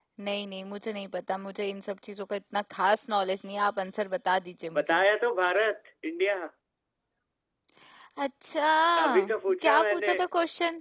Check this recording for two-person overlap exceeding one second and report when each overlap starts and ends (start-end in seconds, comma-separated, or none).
none